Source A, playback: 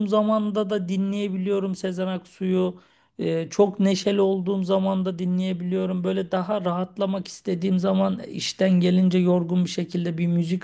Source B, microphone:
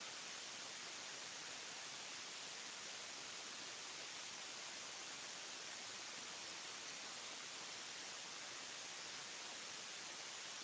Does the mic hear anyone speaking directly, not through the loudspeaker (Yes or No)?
No